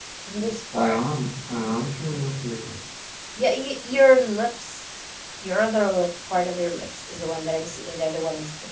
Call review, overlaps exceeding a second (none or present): none